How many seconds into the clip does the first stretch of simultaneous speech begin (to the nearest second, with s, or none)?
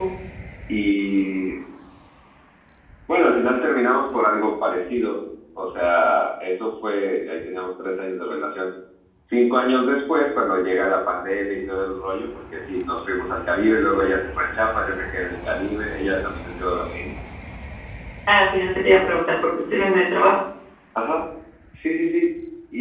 none